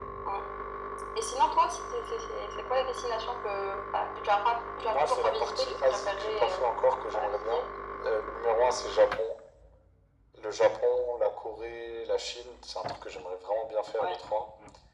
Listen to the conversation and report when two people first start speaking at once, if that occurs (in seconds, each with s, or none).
4.8 s